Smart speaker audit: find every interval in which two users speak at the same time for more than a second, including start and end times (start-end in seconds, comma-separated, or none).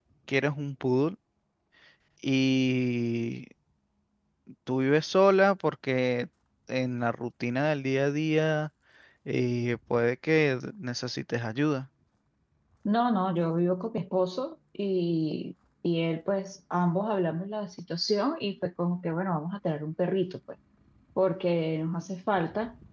none